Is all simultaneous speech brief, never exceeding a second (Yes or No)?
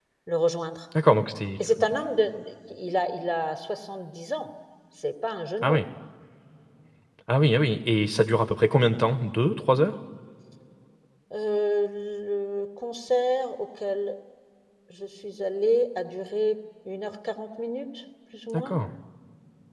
Yes